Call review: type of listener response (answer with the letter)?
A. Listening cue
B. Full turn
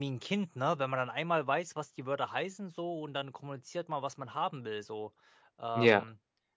A